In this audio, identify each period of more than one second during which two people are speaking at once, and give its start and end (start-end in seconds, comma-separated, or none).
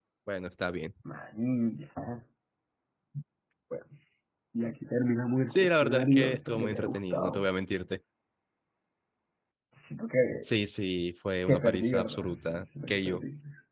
5.5-7.5, 11.5-13.2